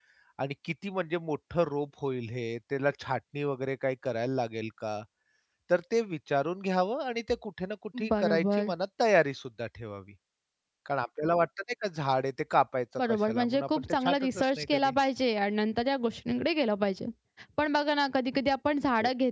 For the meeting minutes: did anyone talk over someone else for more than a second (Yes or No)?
Yes